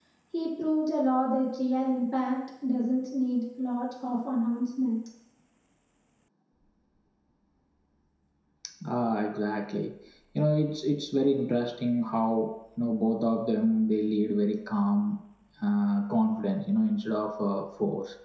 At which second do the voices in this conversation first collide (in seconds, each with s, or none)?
none